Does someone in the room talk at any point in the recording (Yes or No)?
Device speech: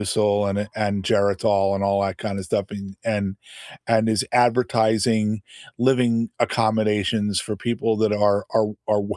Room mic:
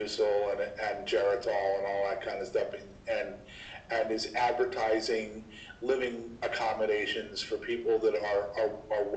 No